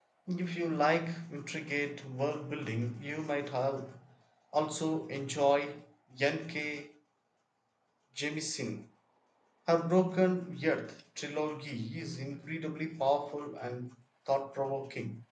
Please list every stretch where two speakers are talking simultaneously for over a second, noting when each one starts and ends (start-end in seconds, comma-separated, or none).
none